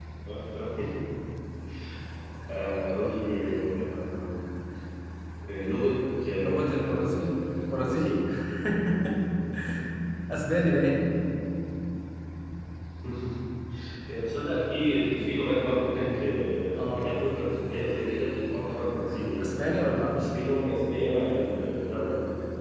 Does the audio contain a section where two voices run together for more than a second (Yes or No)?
Yes